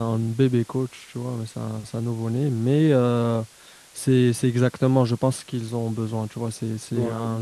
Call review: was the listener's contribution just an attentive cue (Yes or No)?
Yes